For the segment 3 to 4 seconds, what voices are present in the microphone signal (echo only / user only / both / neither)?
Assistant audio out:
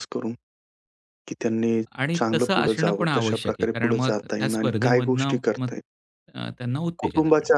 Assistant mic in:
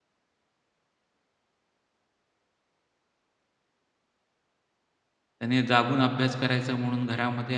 neither